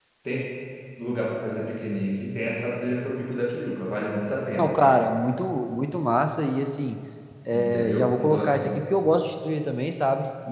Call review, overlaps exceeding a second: present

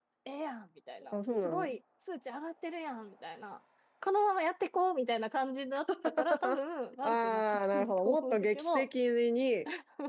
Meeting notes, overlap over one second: present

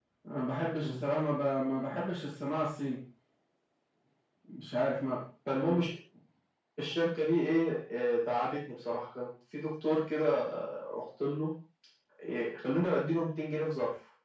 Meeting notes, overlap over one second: none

